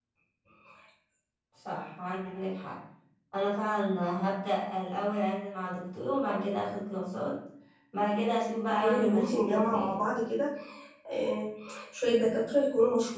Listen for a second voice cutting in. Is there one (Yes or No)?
Yes